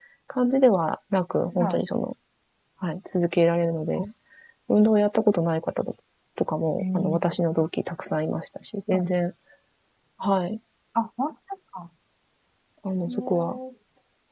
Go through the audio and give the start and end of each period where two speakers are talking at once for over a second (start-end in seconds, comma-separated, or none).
none